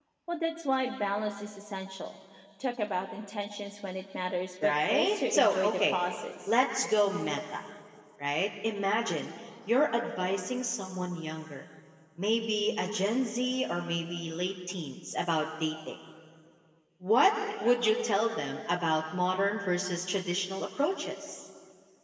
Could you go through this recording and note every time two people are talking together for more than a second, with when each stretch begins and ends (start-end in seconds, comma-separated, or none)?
4.6-6.0